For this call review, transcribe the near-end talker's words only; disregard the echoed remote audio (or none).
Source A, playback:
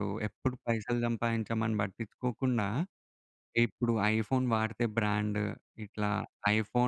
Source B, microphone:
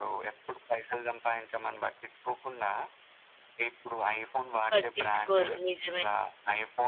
పట్టిచ్చుకోరు. నిజమే.